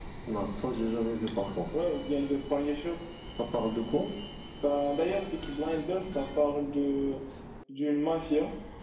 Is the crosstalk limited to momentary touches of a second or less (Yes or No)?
Yes